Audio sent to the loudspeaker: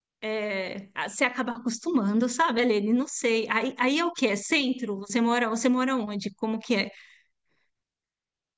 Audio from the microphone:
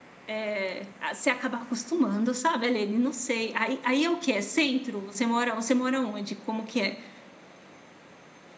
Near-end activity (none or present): none